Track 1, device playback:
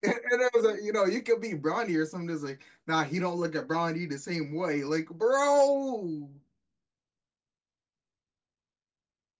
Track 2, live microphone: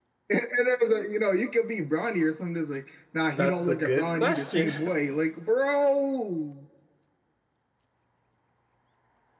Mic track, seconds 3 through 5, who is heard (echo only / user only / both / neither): both